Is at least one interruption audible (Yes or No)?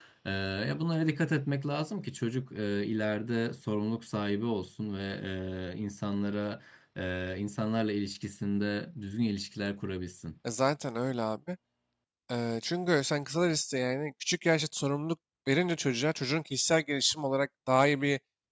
No